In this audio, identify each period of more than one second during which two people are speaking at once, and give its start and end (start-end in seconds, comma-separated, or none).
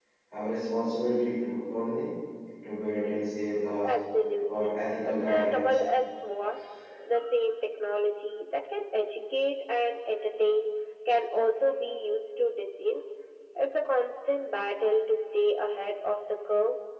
4.5-5.8